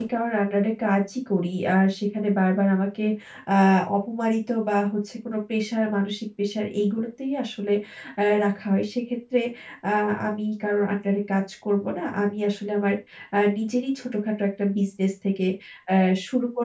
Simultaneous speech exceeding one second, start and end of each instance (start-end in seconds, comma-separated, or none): none